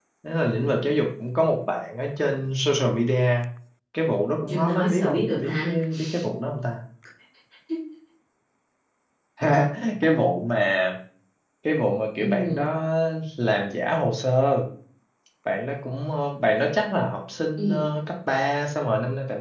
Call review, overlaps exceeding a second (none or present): present